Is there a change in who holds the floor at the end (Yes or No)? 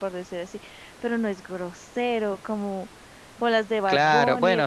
Yes